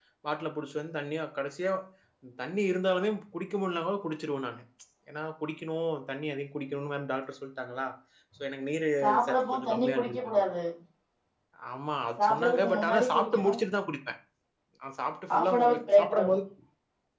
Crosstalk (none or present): present